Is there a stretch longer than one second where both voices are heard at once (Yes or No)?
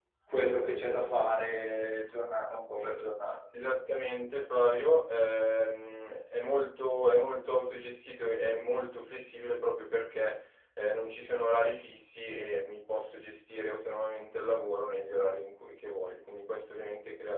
No